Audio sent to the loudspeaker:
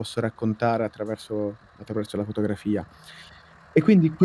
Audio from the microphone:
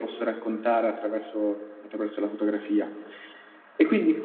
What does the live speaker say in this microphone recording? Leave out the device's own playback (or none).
none